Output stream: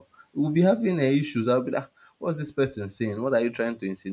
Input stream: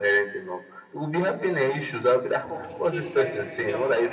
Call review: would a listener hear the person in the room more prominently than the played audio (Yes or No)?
No